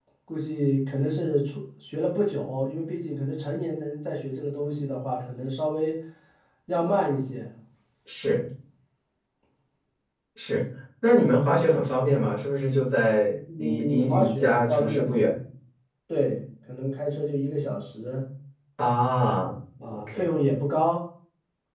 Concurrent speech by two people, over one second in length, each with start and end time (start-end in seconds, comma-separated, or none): 13.6-15.1